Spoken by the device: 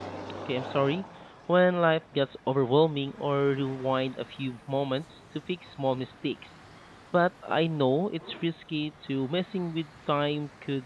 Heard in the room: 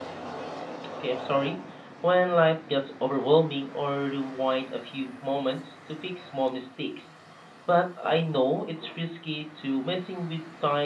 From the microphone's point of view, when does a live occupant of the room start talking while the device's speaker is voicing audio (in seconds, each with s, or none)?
none